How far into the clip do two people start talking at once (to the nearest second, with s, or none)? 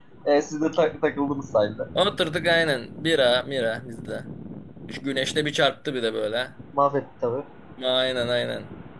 none